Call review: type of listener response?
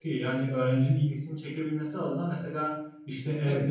listening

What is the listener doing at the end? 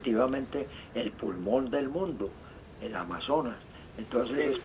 listening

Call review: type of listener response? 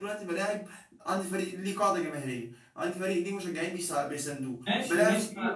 taking over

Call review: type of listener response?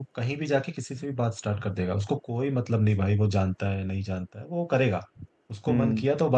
listening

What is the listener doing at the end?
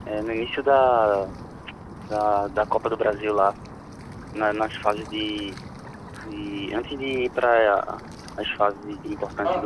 taking over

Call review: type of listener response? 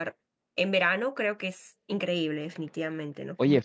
taking over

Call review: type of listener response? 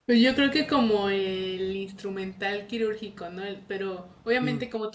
listening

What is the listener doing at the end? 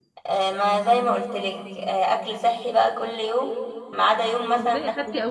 taking over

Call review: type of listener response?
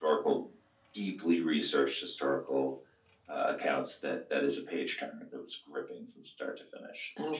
listening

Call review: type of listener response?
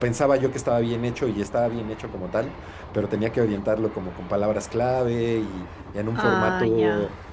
listening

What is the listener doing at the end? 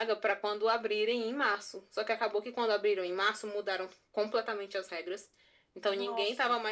listening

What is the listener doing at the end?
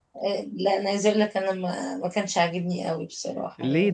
taking over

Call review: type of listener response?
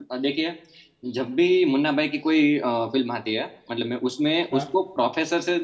listening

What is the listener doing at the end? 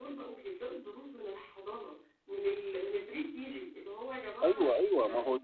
taking over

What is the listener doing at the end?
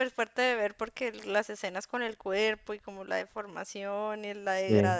listening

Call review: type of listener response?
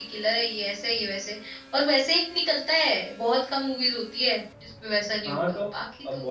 taking over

